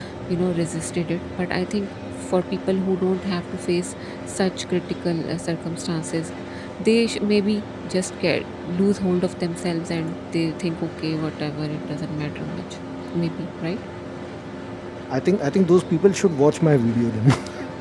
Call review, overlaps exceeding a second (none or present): none